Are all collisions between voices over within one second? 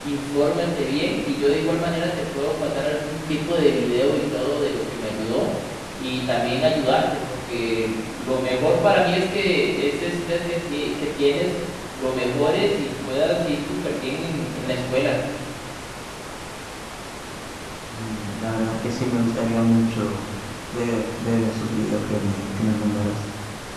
Yes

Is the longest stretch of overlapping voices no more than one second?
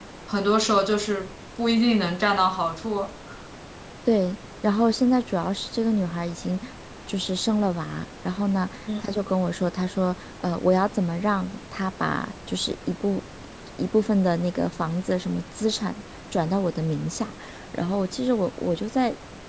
Yes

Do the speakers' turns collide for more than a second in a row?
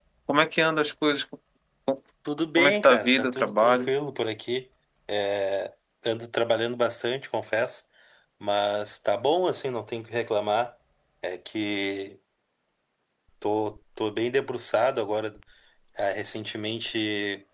Yes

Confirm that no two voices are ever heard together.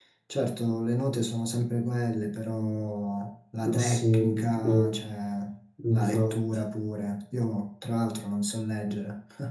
No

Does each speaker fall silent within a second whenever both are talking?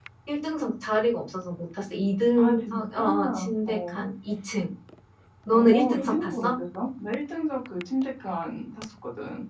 No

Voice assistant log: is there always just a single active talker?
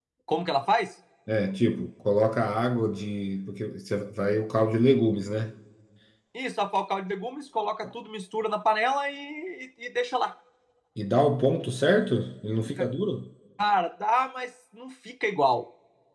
Yes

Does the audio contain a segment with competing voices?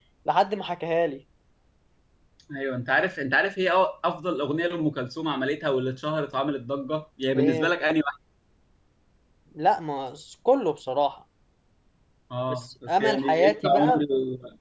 Yes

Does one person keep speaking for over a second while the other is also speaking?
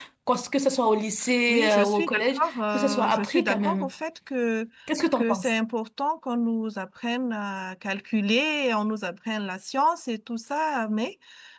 Yes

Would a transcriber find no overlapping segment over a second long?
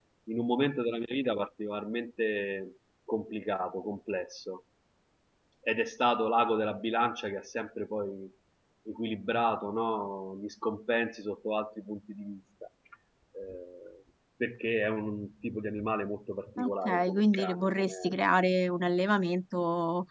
No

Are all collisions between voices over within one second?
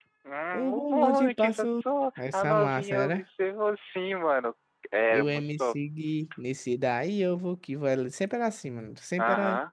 No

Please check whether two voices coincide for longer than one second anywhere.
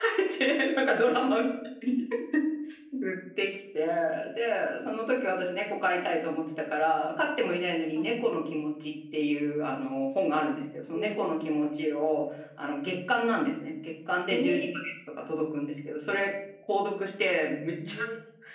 No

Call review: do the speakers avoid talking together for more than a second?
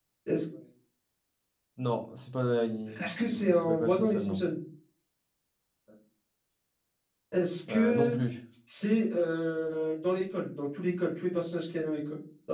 No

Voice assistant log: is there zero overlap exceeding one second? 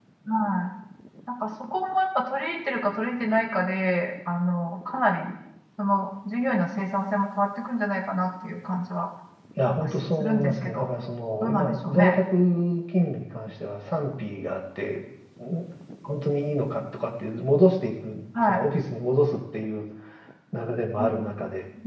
No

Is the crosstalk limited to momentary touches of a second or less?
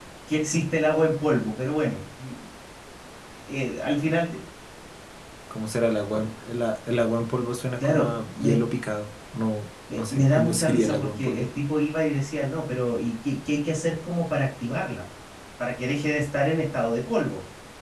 No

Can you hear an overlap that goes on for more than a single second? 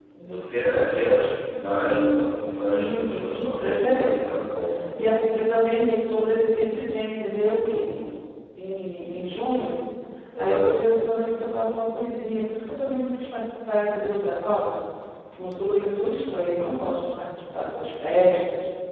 Yes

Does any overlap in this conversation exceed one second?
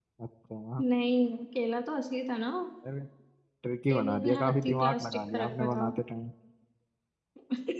Yes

